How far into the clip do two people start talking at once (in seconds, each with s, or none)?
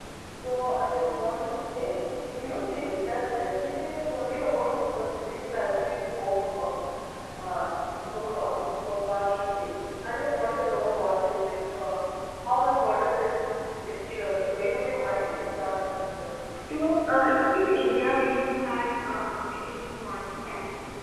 none